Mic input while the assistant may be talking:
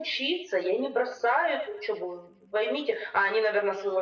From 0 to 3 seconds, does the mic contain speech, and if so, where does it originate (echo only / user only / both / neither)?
echo only